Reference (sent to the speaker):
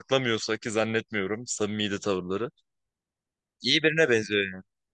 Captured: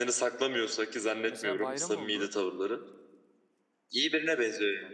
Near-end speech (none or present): present